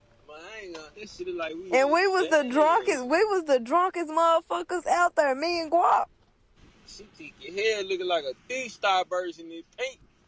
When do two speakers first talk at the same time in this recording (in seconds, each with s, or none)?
1.7 s